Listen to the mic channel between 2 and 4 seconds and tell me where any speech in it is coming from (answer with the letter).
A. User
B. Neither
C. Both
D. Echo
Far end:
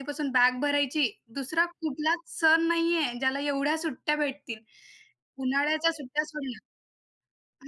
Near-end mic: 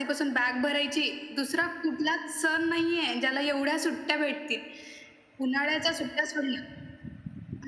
D